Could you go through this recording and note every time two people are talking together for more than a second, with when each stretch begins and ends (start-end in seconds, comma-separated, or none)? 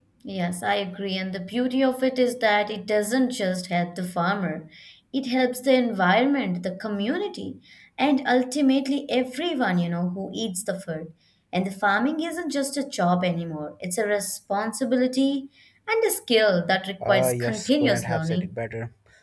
17.1-18.5